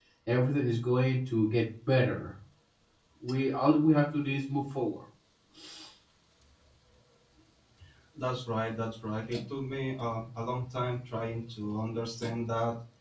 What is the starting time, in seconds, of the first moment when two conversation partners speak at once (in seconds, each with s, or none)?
none